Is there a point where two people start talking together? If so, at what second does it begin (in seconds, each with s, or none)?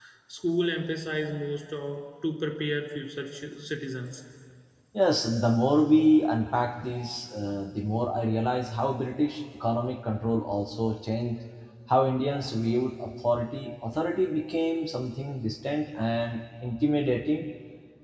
none